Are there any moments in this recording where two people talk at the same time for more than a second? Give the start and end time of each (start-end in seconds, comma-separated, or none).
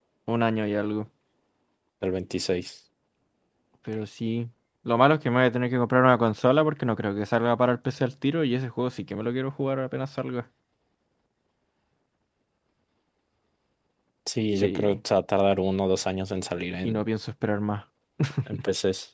none